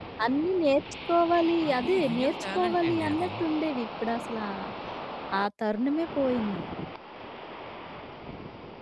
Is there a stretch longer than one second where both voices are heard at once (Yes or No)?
Yes